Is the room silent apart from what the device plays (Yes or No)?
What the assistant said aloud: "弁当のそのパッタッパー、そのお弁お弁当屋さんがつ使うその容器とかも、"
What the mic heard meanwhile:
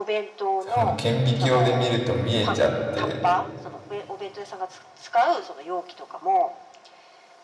No